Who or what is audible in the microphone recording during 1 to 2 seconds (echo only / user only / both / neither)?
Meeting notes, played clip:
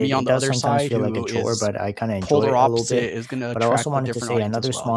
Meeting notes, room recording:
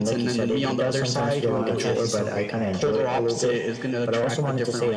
both